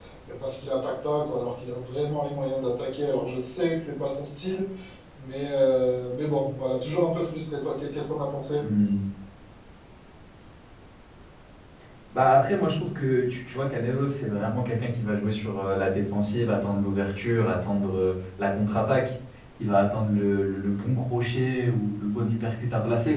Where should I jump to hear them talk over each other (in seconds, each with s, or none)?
none